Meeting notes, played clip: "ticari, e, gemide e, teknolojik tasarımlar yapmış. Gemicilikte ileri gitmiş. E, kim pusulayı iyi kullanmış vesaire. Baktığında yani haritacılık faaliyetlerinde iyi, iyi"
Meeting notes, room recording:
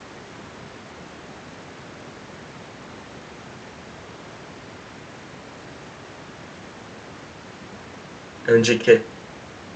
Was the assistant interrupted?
Yes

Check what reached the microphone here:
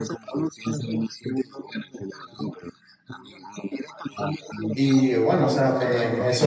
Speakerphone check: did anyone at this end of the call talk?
Yes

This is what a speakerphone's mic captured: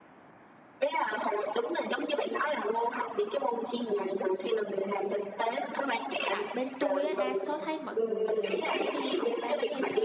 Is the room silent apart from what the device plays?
No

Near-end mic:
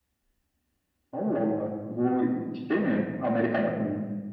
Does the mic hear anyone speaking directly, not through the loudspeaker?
No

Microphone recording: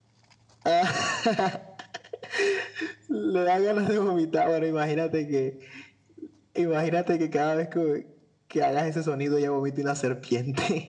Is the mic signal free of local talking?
Yes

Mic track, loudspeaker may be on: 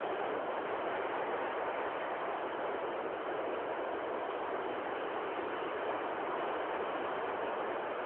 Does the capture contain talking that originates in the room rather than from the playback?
No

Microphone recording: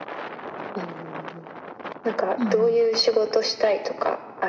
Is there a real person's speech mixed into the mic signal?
Yes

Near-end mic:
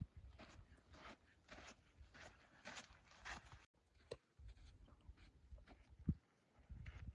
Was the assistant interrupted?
No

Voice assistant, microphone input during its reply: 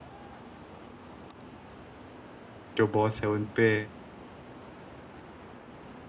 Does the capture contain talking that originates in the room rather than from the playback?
Yes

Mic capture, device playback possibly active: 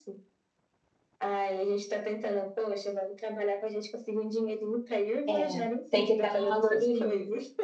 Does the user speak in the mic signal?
Yes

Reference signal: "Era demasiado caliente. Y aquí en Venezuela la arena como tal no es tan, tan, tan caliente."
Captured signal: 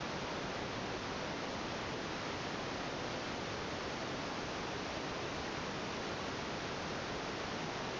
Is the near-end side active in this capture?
No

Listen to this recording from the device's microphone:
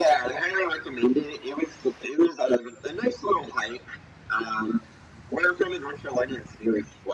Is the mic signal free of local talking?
Yes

